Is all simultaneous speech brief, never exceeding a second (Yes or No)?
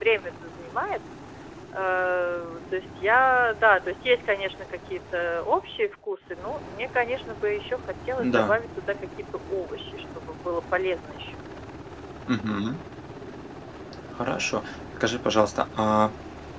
Yes